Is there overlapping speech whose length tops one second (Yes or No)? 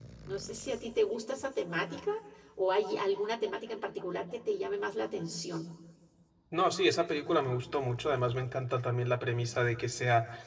No